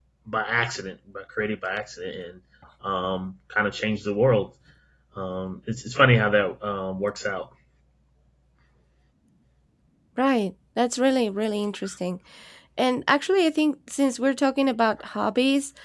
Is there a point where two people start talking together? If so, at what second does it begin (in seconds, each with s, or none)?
none